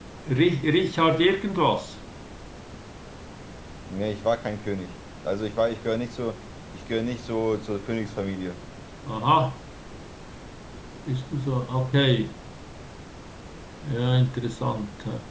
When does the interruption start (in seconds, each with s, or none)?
none